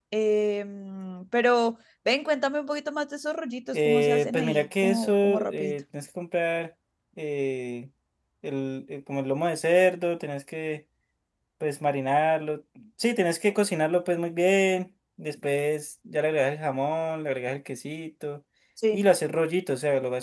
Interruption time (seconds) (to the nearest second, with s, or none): 4 s